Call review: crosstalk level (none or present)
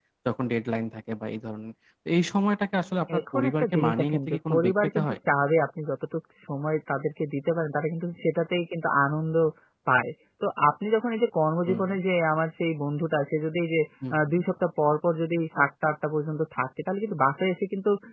present